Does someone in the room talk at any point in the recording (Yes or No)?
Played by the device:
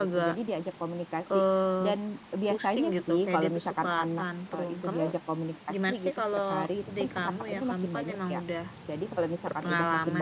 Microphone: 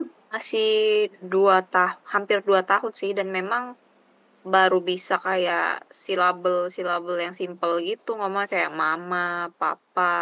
Yes